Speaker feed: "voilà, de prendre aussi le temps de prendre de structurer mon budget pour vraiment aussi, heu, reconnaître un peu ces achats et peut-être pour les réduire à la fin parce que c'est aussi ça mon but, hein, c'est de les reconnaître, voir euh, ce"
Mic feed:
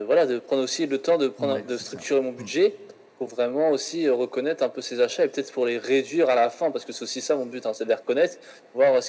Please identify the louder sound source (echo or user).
echo